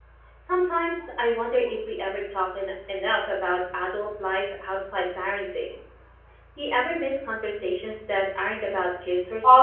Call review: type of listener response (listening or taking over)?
taking over